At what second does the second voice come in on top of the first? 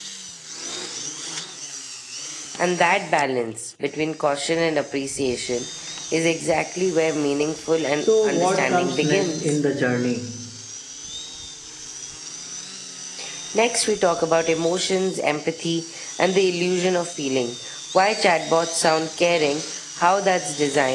8 s

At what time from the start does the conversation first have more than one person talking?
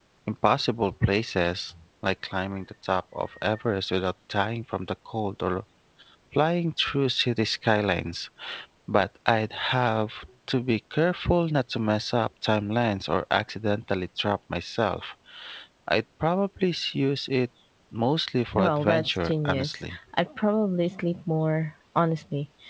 19 s

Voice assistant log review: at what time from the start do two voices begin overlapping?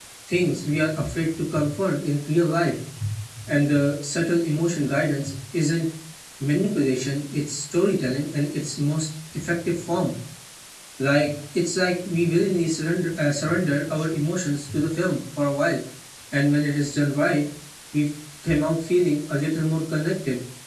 none

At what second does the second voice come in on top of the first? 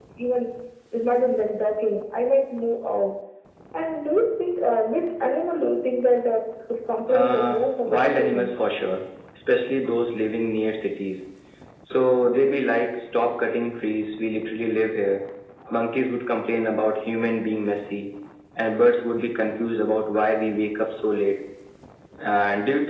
7 s

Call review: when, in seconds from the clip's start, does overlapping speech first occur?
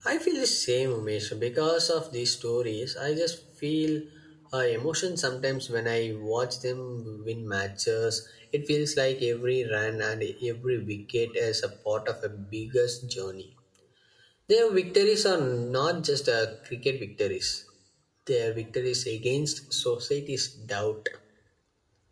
none

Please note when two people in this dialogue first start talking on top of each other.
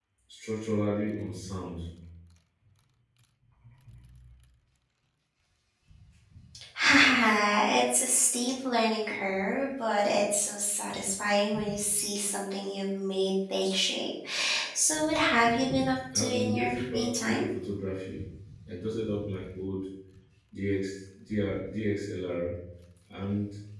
16 s

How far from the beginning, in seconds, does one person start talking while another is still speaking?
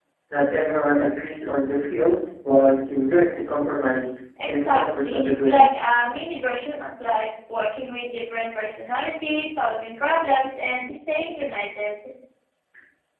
4 s

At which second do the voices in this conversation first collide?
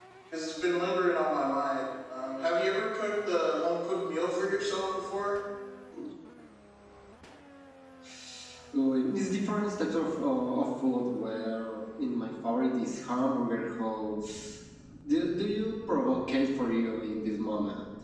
none

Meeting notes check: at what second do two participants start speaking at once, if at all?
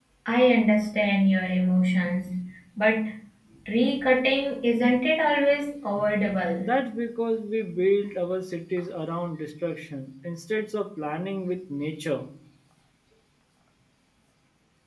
none

